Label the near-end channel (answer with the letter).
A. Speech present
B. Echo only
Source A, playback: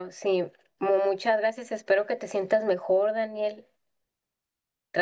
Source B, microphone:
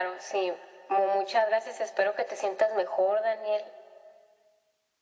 B